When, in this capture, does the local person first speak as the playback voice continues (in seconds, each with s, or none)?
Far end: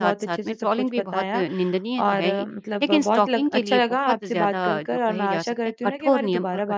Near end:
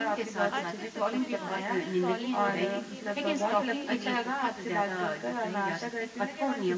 0.5 s